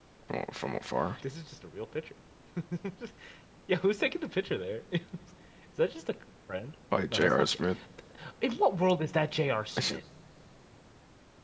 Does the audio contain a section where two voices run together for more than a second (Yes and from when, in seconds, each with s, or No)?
No